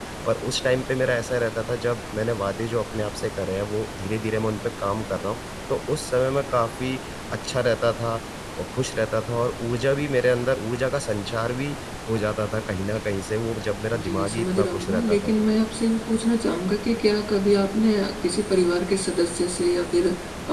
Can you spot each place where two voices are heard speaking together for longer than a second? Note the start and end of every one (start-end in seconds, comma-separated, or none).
13.9-15.5